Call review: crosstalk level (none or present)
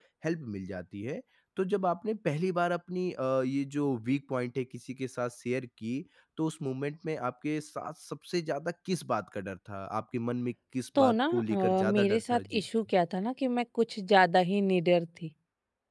present